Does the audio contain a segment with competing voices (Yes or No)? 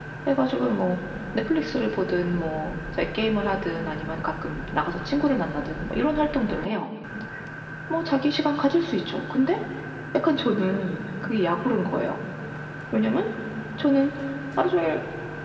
No